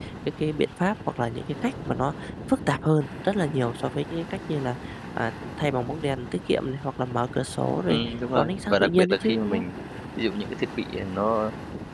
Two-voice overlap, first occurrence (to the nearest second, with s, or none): 8 s